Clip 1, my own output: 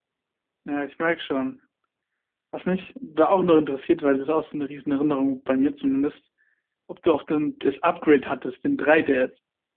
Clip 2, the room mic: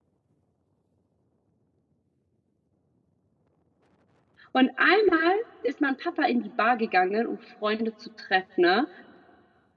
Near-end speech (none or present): present